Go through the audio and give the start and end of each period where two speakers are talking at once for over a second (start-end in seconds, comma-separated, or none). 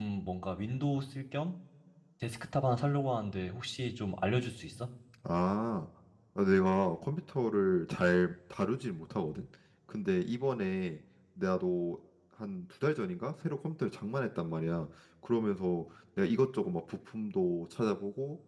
none